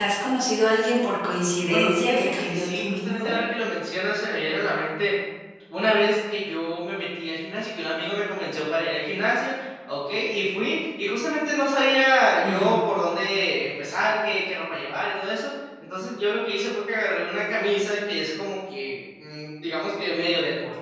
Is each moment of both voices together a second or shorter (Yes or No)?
No